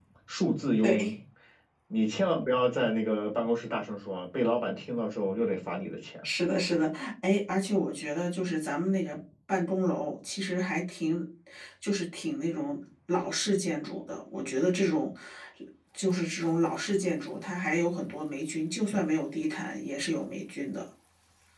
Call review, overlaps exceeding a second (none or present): none